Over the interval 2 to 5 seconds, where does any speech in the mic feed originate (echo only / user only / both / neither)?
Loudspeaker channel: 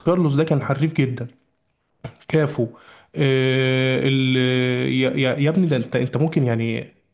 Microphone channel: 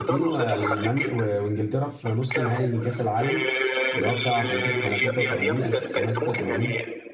both